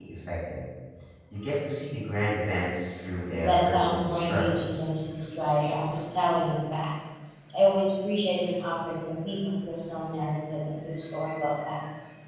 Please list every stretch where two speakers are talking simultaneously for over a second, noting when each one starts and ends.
3.4-4.8

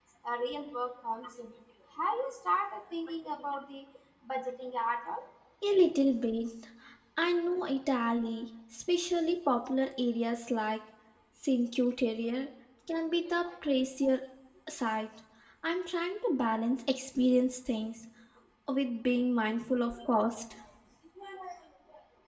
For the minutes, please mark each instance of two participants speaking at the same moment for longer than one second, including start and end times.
none

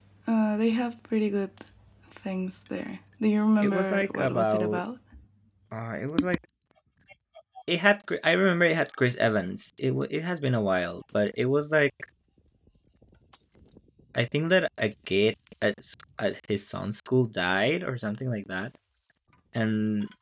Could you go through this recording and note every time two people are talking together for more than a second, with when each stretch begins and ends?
3.6-4.8

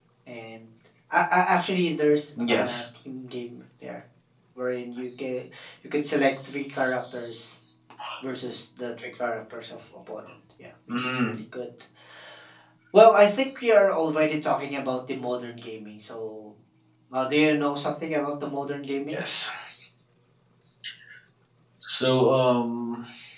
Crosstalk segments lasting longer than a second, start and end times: none

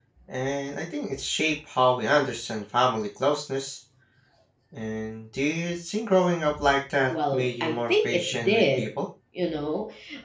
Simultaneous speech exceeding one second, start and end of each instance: 7.1-8.9

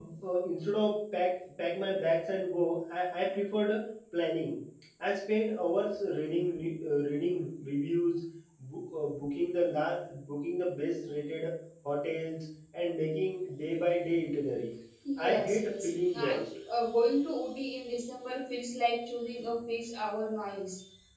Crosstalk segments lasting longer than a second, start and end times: 15.2-16.5

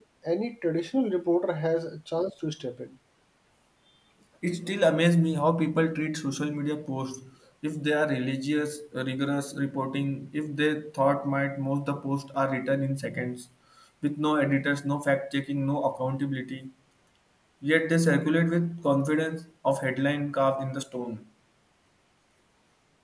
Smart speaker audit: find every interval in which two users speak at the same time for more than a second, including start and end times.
none

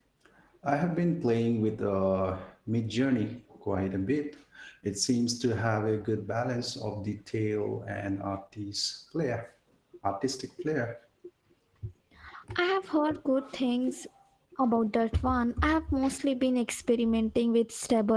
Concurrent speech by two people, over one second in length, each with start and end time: none

